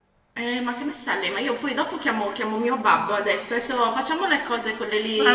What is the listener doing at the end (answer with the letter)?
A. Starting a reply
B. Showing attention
A